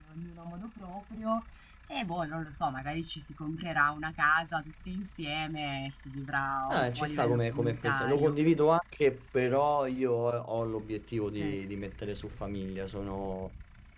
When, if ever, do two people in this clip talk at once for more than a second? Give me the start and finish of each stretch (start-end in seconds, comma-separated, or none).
6.7-8.4